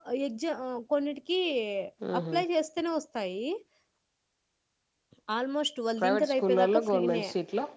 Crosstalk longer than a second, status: present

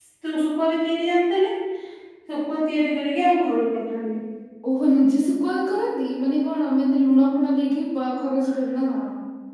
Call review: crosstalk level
none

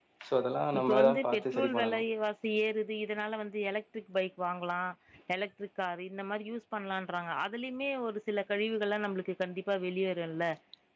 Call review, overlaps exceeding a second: present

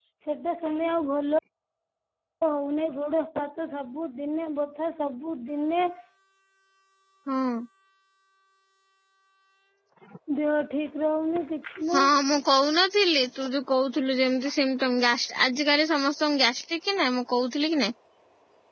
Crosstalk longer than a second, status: none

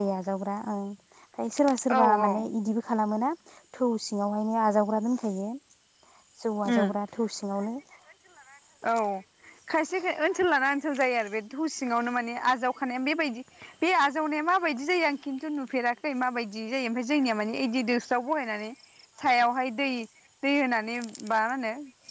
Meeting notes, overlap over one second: none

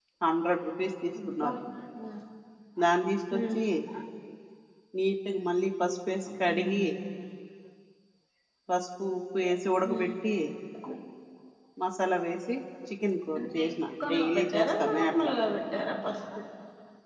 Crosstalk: present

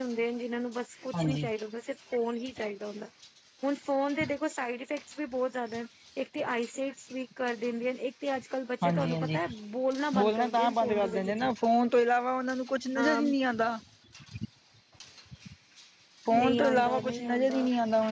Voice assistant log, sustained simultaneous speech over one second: present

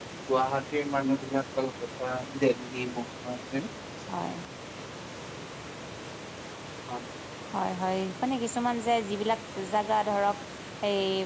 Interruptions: none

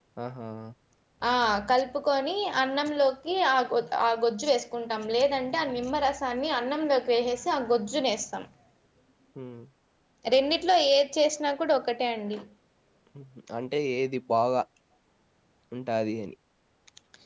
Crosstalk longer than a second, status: none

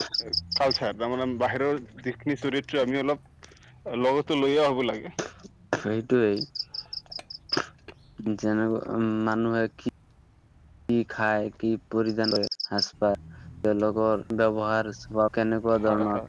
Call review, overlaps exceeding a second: none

